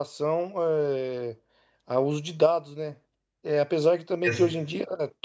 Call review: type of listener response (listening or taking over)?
listening